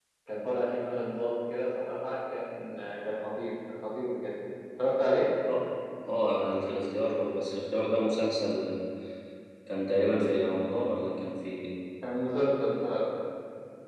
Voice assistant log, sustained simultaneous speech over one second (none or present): none